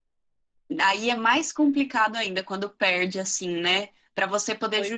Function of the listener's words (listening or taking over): listening